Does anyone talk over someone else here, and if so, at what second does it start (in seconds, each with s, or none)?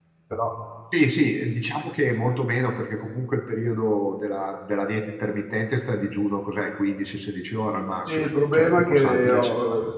8.1 s